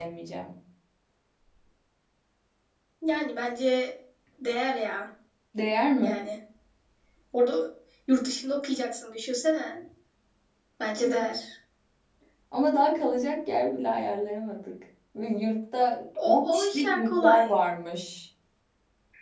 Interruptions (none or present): present